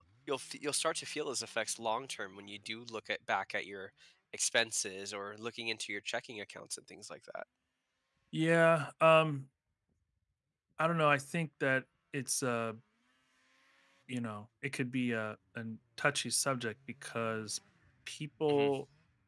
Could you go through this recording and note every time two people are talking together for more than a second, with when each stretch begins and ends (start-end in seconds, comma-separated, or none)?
none